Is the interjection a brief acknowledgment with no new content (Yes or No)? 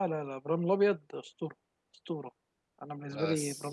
Yes